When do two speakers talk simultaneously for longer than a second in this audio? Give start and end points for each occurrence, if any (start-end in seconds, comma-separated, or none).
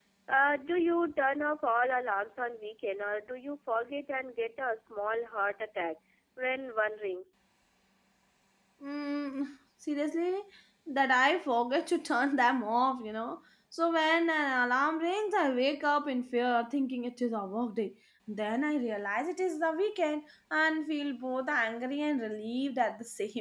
none